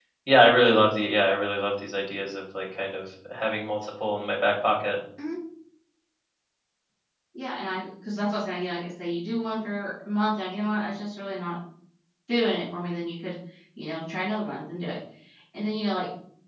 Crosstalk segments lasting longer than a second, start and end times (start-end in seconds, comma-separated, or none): none